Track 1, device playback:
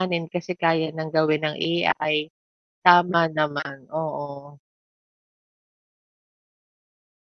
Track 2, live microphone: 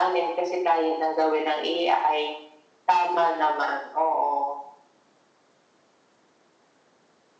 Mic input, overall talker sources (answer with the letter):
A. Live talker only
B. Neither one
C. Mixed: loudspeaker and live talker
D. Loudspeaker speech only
D